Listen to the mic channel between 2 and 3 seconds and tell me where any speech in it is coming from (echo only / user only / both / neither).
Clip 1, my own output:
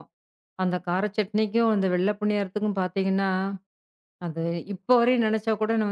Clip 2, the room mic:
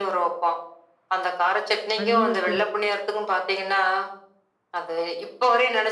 both